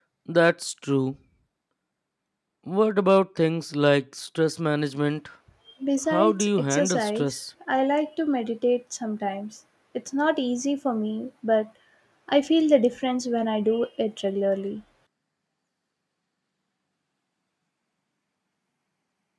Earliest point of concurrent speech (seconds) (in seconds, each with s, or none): 6.1 s